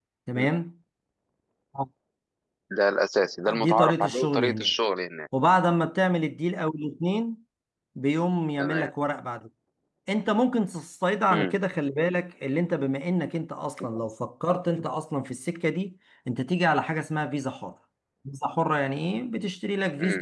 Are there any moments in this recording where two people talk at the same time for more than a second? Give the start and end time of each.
3.5-4.7

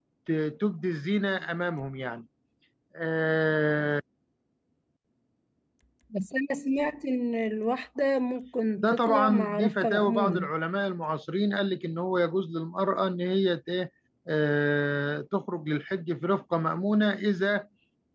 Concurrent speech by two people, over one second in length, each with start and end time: 8.8-10.5

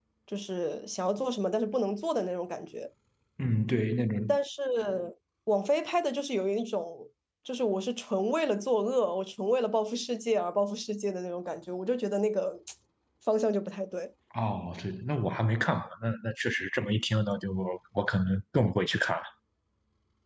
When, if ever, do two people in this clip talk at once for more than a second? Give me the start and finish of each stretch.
none

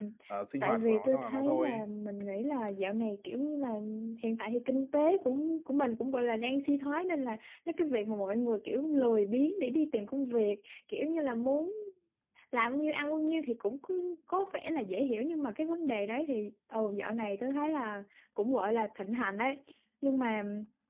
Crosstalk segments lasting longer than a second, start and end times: 0.6-1.8

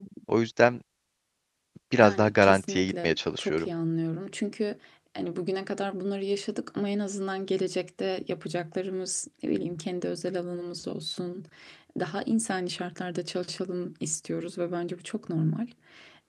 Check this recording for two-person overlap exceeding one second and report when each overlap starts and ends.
2.0-3.7

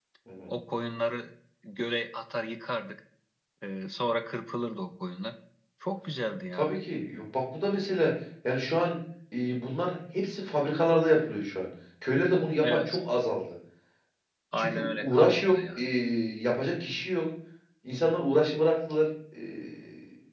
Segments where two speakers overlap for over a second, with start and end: 14.6-15.8

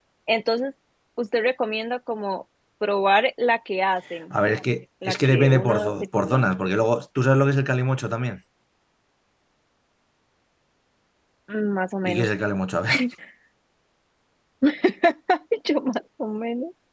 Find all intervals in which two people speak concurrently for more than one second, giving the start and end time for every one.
5.0-6.5

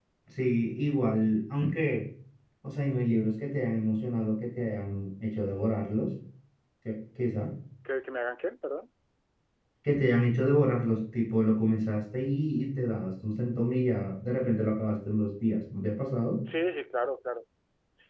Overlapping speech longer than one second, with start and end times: none

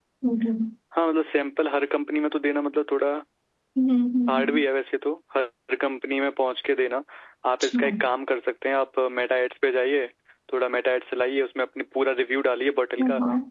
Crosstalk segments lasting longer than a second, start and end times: none

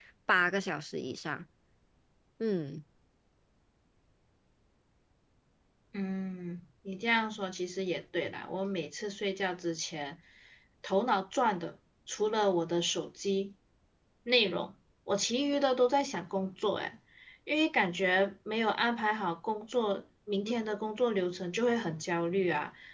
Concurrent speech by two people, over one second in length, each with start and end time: none

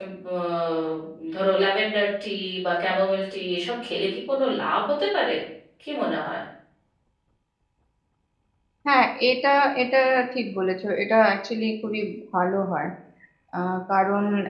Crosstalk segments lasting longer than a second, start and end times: none

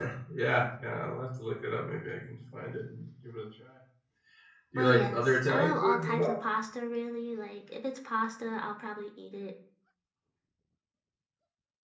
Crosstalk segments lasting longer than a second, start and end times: 4.8-6.3

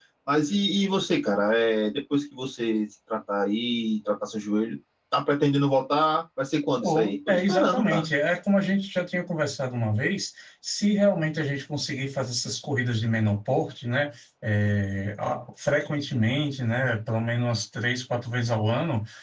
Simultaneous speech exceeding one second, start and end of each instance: 6.8-8.0

